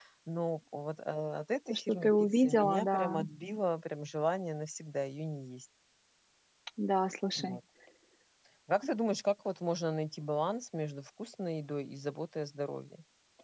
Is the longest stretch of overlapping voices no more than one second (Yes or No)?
No